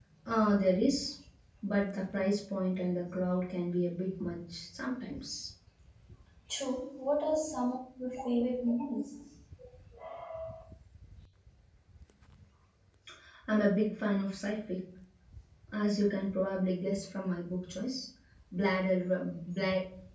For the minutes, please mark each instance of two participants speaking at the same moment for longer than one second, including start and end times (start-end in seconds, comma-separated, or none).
none